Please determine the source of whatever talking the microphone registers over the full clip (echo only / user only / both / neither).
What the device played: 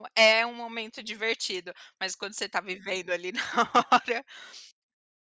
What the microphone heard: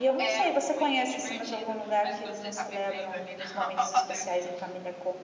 both